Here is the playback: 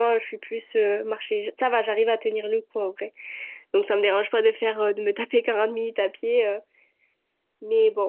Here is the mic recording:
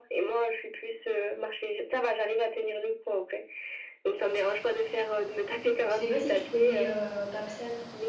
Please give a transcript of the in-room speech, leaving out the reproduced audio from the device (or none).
Je sais pas si tu connais euh, Papsan.